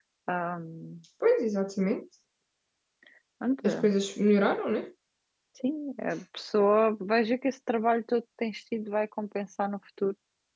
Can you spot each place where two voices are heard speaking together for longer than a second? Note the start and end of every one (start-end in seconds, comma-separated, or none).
none